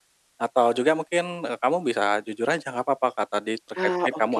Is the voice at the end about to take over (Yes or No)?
No